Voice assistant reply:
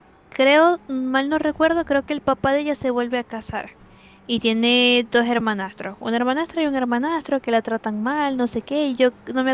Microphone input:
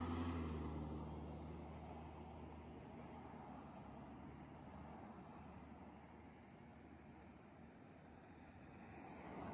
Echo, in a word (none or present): none